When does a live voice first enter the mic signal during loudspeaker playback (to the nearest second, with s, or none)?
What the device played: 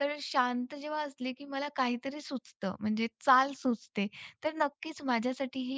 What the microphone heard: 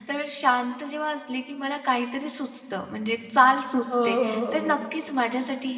4 s